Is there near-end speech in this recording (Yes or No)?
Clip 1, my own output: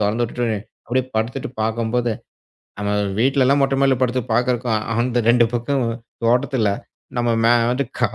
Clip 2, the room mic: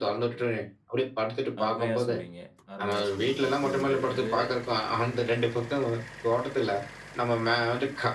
Yes